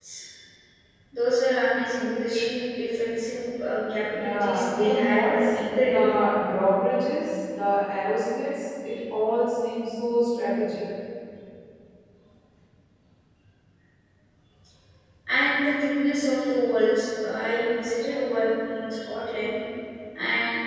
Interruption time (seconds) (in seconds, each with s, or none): 4.1 s